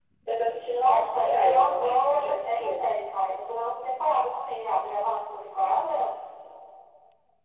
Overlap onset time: 1 s

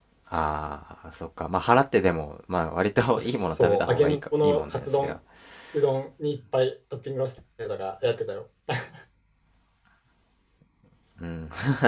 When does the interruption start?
3 s

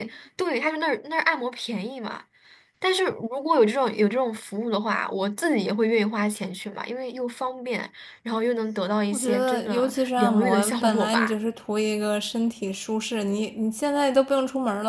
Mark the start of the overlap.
9 s

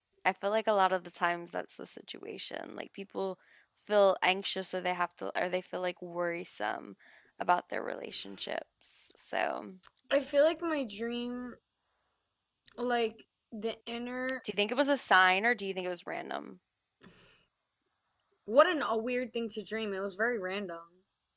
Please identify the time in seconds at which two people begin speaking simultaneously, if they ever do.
none

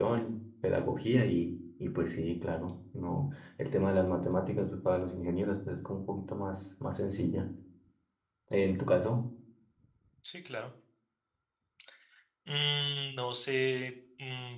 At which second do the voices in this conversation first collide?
none

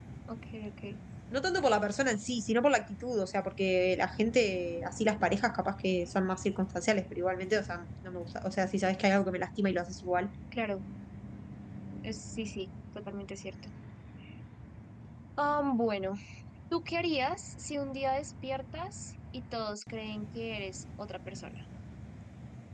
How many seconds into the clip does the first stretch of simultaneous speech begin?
none

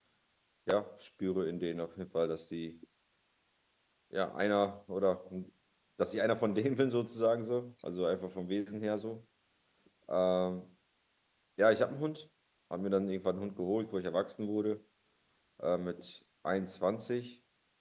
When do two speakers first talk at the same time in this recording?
none

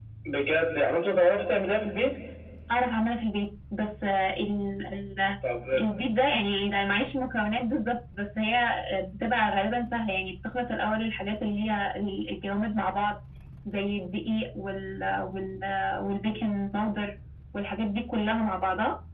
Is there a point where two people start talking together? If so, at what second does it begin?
none

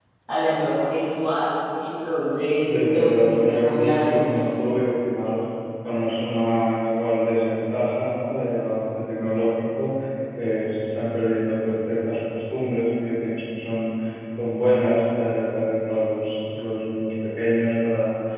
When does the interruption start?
3 s

